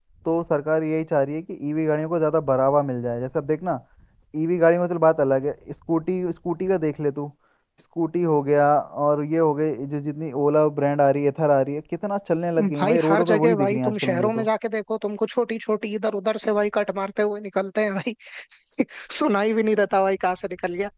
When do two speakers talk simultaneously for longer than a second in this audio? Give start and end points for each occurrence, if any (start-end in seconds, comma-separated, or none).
12.8-14.5